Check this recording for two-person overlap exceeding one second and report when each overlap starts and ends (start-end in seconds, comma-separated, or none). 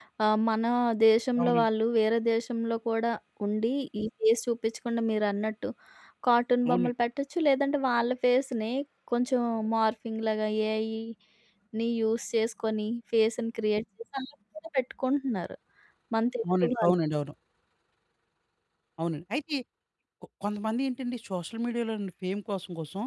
none